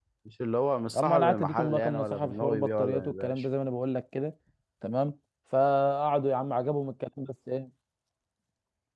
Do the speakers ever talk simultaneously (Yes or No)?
Yes